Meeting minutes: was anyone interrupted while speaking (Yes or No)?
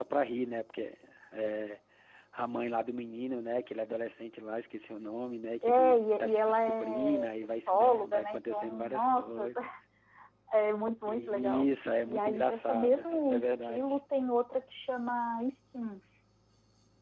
Yes